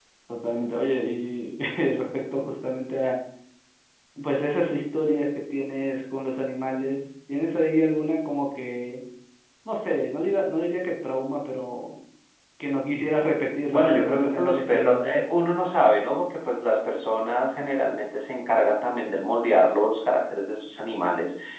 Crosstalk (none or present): present